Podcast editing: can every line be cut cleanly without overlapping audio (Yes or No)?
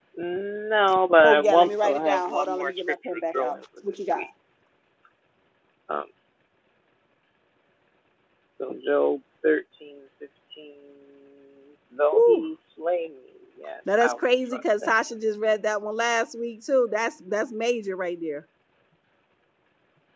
No